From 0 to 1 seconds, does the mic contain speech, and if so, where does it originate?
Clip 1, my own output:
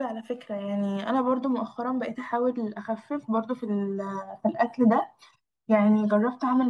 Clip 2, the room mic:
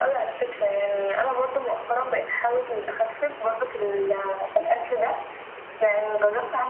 echo only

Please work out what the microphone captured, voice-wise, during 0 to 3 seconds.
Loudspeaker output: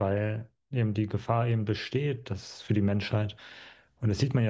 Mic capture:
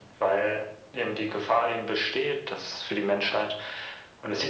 echo only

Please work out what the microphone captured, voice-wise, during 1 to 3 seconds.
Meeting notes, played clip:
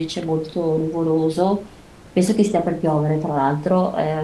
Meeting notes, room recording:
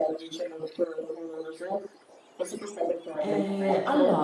echo only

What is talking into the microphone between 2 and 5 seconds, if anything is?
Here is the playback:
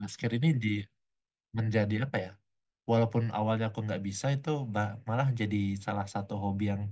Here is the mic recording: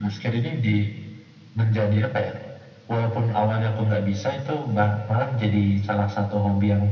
echo only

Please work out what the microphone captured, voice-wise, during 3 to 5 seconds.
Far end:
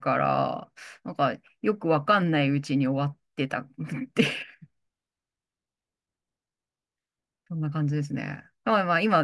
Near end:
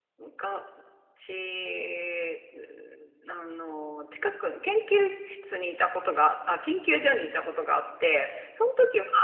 user only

